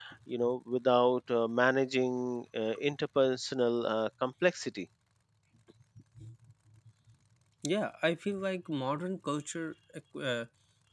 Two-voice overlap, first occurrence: none

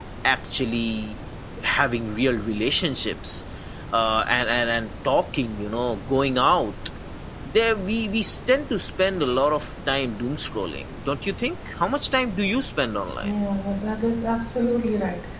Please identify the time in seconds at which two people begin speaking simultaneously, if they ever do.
none

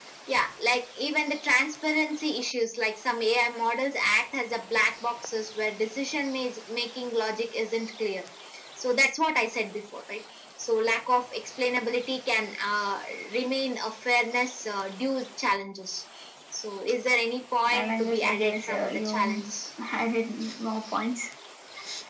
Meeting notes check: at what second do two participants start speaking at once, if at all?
17.7 s

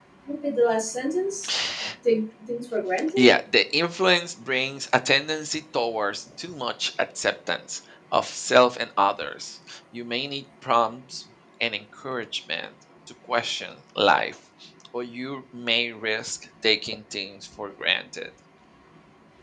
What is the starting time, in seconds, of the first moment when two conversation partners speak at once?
none

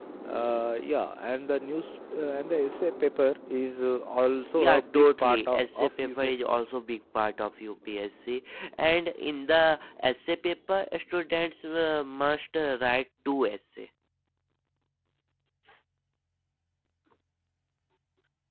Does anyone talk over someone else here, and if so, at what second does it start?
4.6 s

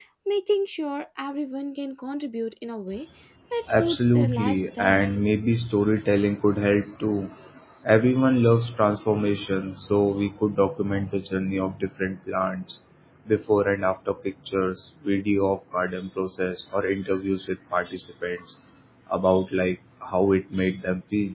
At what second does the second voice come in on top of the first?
3.7 s

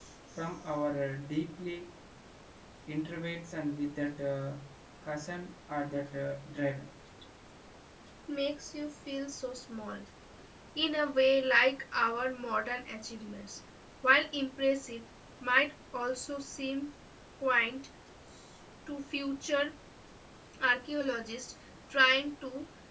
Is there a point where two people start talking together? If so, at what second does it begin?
none

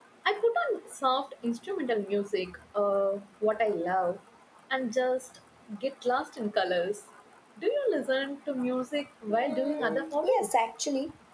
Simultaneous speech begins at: 9.3 s

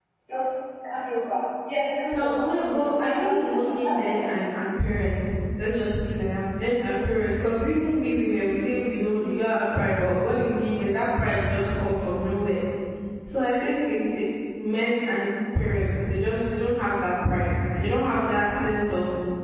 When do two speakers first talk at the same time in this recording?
2.1 s

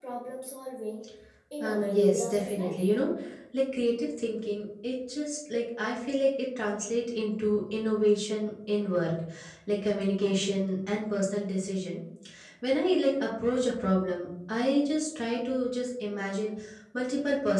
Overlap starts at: 1.6 s

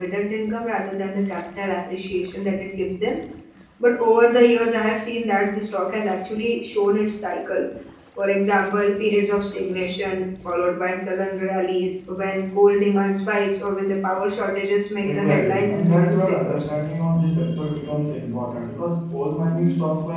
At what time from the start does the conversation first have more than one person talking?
15.0 s

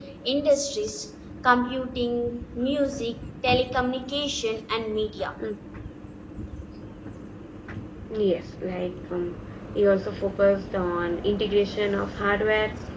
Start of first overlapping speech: none

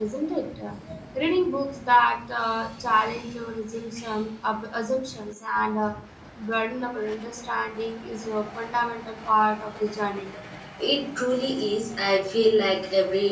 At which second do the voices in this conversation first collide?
none

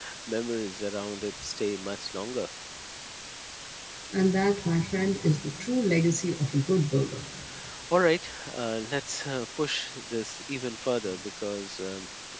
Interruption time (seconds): none

